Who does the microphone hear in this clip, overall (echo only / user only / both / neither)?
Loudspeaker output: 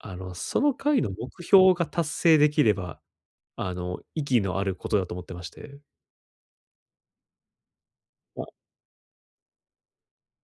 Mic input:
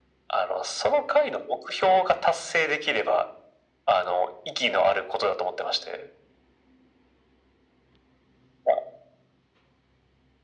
echo only